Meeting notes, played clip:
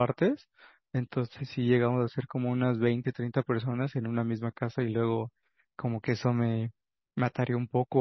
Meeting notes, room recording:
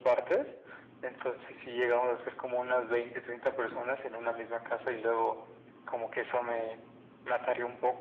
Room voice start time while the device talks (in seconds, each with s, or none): none